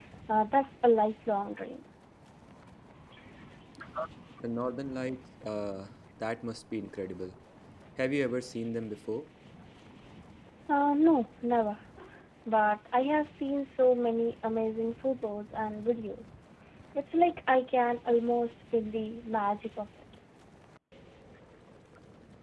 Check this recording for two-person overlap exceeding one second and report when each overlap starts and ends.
none

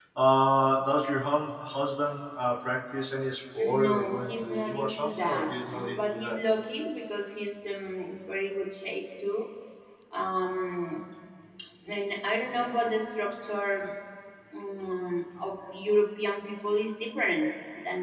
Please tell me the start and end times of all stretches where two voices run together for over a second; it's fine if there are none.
3.6-6.4

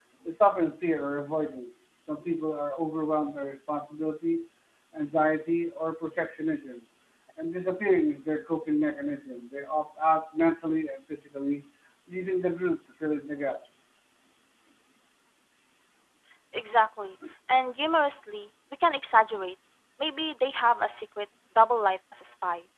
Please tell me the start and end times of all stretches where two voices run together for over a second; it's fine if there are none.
none

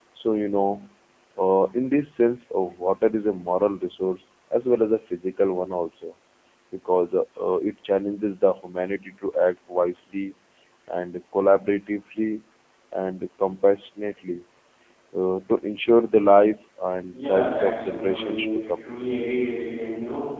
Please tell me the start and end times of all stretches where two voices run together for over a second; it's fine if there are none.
17.1-18.8

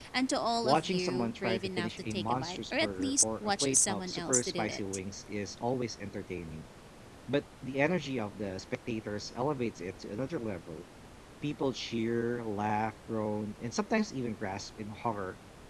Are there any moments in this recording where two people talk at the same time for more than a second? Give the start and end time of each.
0.6-4.8

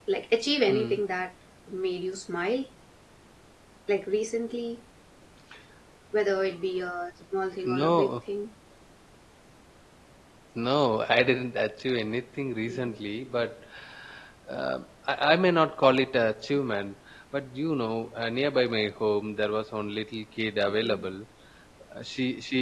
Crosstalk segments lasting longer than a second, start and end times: none

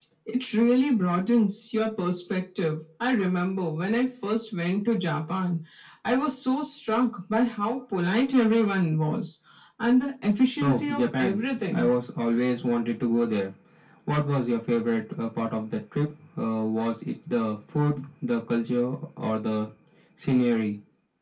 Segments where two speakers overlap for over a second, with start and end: 10.6-11.9

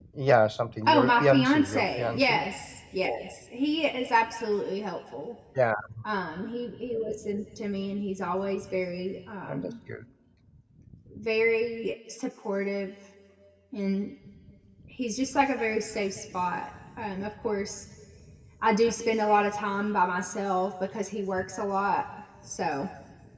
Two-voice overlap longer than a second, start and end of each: 0.9-2.4

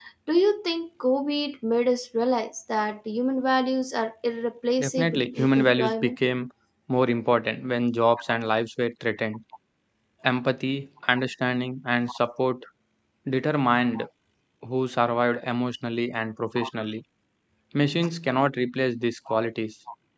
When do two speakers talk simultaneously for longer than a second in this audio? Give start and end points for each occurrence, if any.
4.8-6.2

